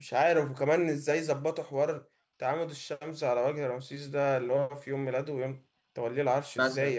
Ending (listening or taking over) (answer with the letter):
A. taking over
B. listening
A